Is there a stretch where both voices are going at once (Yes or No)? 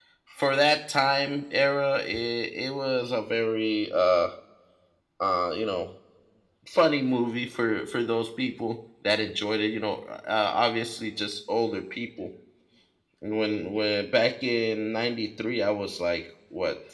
No